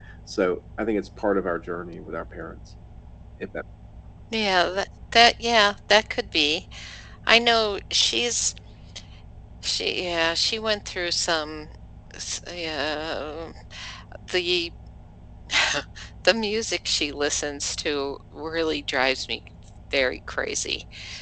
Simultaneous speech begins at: none

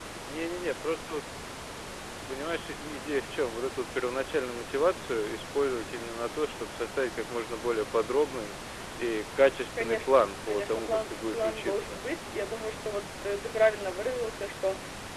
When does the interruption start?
9.8 s

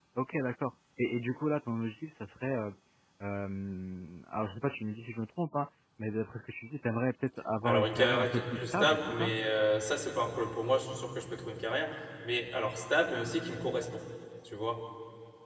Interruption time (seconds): 7.6 s

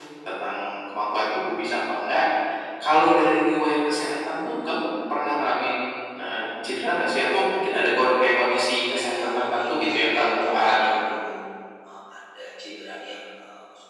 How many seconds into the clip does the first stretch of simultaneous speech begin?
8.9 s

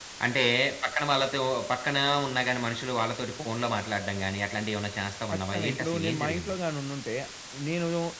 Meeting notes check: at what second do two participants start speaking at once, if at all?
5.3 s

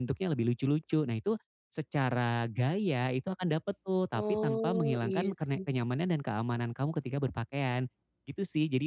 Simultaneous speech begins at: 4.1 s

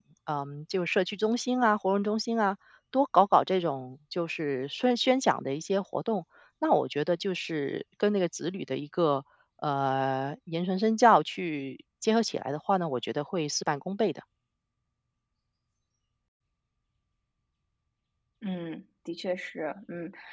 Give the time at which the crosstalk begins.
none

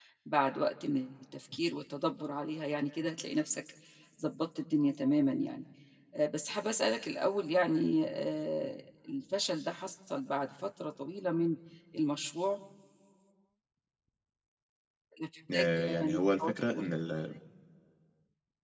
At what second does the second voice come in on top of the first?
15.5 s

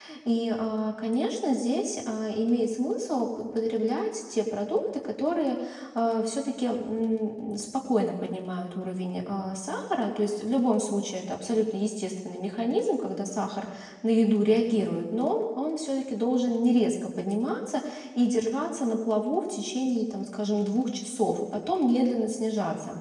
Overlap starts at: none

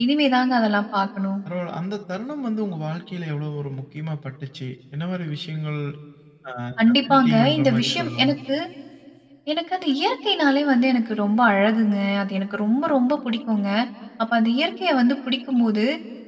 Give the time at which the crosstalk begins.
7.0 s

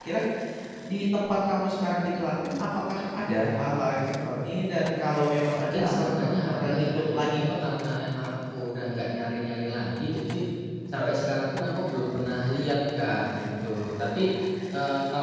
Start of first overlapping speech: 5.5 s

